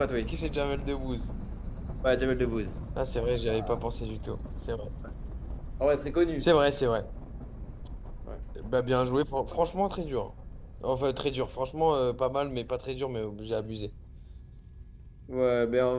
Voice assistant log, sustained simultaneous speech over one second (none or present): none